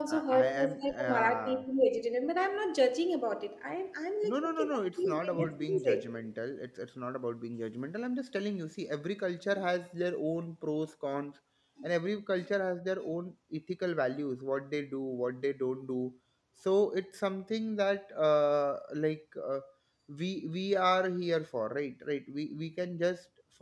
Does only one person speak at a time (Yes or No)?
No